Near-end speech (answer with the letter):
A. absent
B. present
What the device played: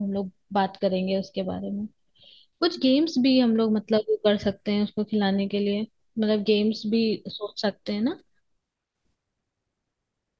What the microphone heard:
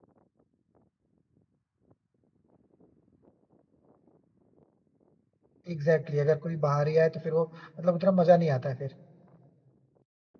B